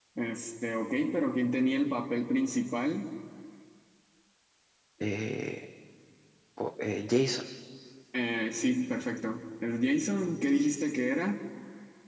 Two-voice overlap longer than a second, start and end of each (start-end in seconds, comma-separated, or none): none